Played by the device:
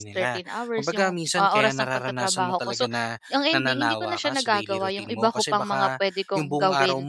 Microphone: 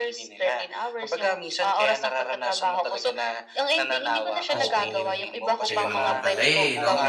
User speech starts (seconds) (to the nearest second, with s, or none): 5 s